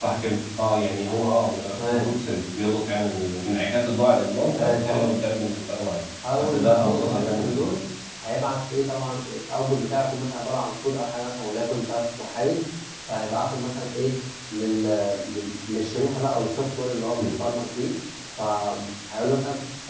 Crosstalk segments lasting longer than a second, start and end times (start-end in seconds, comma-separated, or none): 6.4-7.7